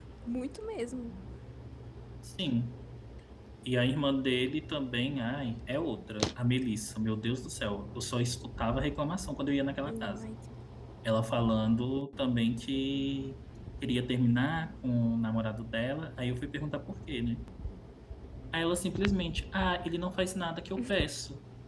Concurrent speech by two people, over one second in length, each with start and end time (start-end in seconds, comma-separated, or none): none